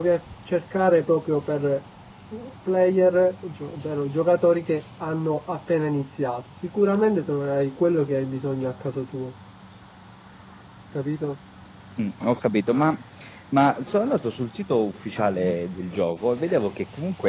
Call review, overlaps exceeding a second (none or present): none